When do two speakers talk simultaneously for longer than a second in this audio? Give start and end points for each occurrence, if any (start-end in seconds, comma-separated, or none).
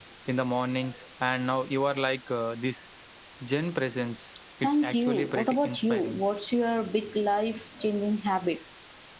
4.6-6.2